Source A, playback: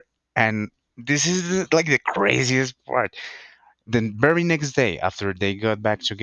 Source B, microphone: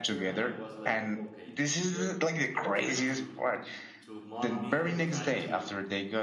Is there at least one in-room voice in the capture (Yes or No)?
Yes